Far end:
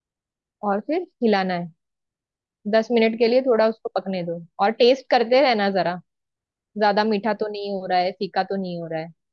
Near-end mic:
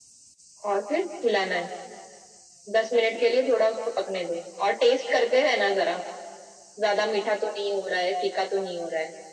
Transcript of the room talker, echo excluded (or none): none